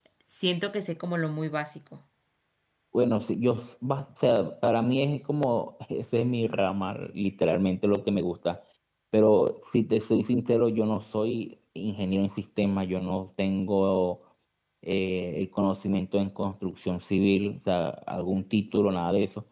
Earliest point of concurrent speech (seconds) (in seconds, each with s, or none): none